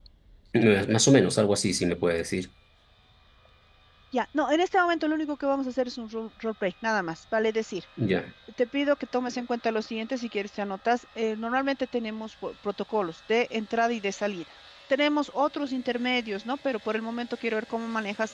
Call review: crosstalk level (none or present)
none